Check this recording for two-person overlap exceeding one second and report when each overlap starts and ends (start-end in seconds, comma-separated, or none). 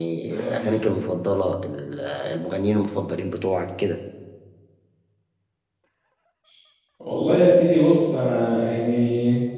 none